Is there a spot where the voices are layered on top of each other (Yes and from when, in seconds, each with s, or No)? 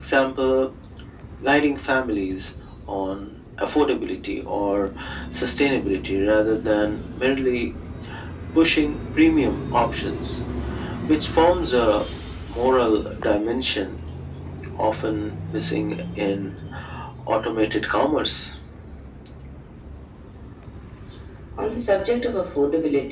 No